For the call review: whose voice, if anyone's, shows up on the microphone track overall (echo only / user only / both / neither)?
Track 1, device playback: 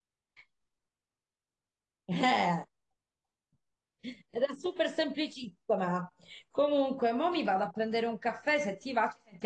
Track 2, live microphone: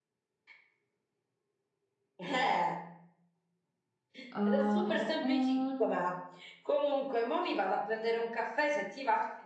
both